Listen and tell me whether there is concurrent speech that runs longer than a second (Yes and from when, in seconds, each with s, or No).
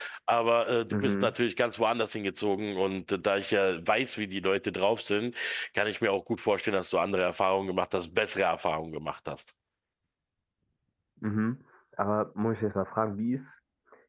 No